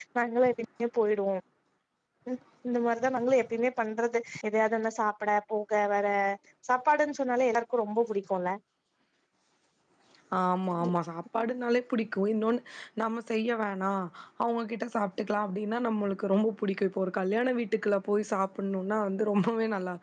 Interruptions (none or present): none